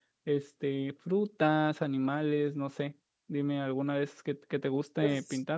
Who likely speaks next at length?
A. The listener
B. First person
A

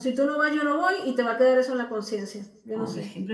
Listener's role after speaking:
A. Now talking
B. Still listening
A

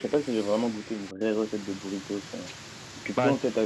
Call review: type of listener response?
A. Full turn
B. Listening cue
A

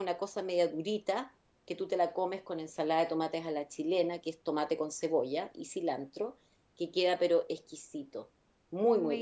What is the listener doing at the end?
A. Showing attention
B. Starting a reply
B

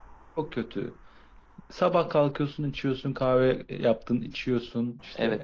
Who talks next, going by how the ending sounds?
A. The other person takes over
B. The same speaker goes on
A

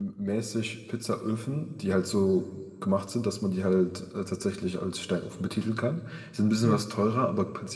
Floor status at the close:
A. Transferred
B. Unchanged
B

